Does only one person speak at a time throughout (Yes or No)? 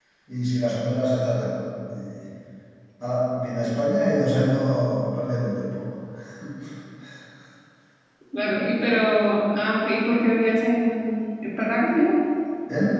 Yes